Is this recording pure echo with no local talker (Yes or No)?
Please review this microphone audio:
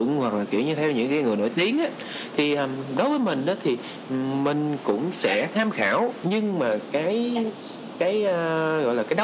Yes